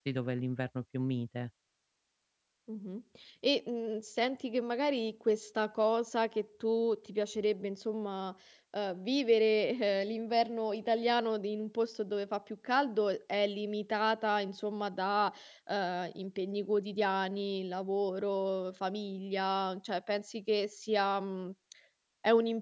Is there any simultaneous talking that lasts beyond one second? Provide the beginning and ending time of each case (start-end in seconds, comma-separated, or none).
none